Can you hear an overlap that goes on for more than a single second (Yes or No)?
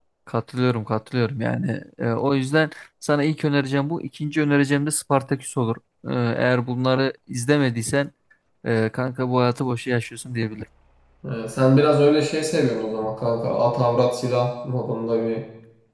No